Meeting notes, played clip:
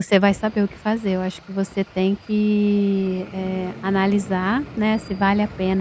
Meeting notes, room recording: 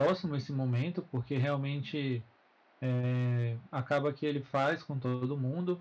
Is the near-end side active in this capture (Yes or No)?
Yes